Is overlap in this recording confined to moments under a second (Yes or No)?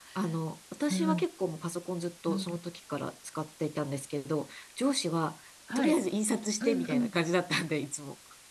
Yes